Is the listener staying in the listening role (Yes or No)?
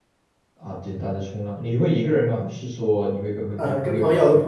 No